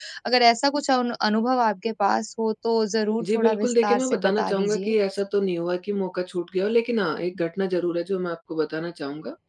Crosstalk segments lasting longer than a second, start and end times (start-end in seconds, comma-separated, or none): 3.2-4.9